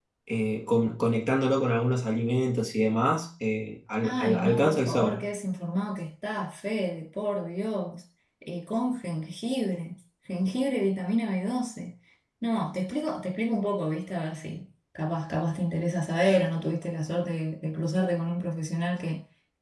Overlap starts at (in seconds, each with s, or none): 4.0 s